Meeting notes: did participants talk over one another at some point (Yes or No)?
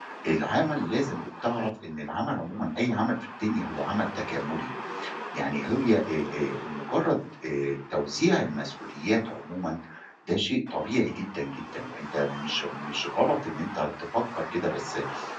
No